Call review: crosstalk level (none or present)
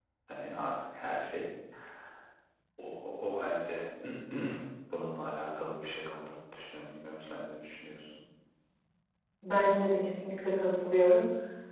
none